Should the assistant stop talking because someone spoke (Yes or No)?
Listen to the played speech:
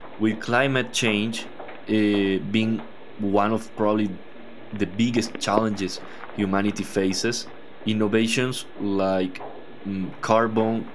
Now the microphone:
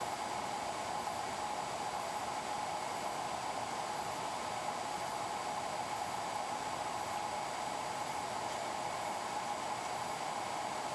No